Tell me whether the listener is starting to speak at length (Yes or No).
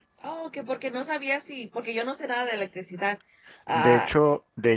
Yes